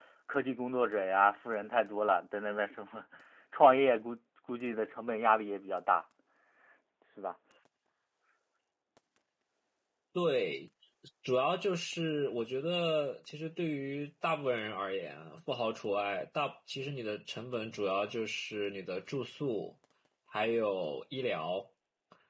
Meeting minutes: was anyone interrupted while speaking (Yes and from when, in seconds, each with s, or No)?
No